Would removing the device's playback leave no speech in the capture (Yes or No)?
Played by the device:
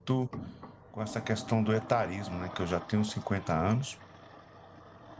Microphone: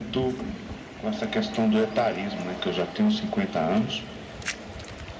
Yes